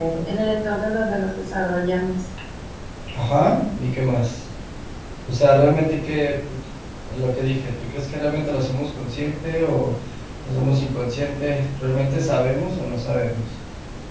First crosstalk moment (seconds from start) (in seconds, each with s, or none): none